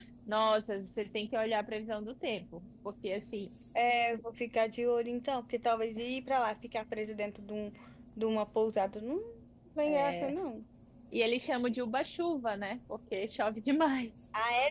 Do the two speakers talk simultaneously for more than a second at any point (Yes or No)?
No